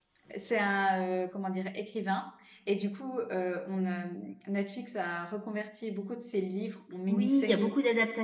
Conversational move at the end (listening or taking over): taking over